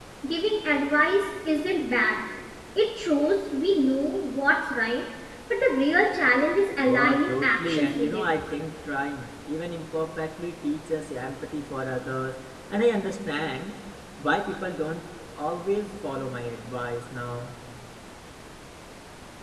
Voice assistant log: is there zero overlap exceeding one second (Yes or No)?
No